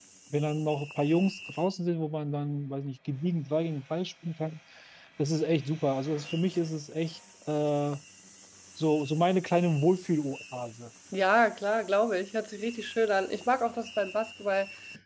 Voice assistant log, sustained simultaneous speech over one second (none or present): none